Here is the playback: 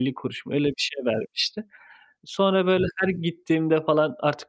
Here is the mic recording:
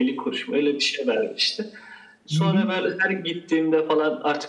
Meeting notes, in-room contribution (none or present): present